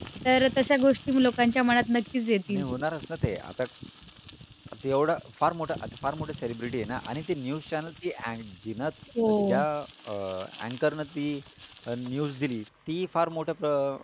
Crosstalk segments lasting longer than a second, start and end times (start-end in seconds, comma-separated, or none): none